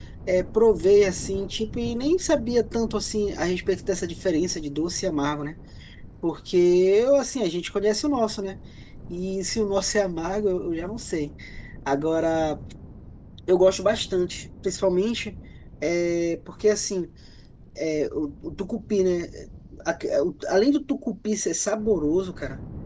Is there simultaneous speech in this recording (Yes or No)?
No